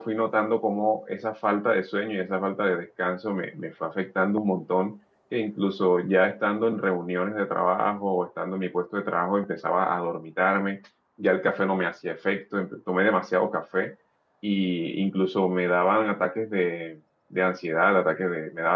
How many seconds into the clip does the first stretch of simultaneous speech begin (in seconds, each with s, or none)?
none